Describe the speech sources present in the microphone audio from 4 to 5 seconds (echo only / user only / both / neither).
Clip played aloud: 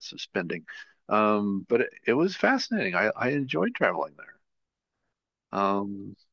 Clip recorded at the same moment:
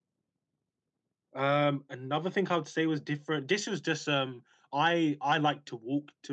user only